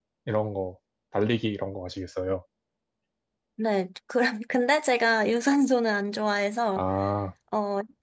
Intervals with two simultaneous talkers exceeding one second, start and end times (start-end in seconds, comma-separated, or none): none